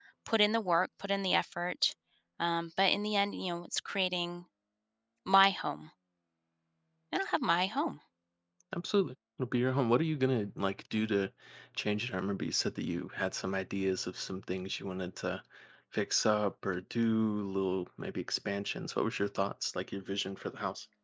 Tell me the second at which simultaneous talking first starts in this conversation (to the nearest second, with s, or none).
none